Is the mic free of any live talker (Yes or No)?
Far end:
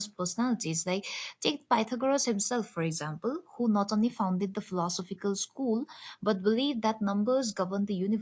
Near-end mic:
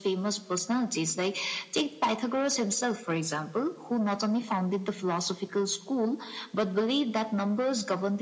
Yes